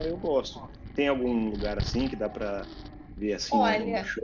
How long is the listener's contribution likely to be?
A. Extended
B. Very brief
B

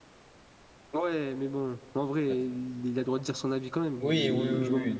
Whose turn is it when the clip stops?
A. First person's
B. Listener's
B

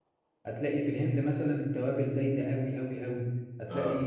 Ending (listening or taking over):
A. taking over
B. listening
B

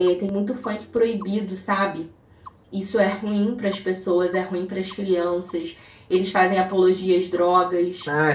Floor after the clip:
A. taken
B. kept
A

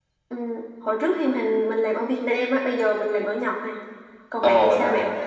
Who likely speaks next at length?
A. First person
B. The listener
B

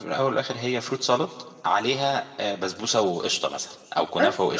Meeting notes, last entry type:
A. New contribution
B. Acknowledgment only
B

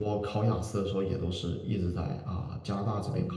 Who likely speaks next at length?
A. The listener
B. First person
A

